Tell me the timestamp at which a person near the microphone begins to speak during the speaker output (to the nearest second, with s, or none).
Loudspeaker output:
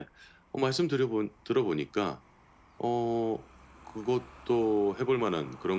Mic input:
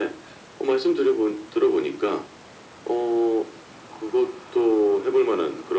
none